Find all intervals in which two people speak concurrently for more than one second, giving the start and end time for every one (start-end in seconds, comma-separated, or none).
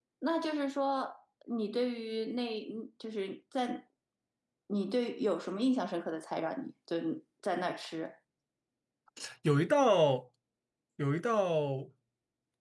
none